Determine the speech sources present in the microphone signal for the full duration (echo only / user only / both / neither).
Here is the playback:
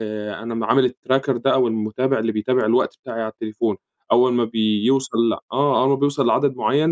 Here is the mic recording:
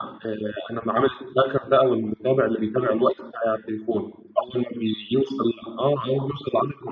echo only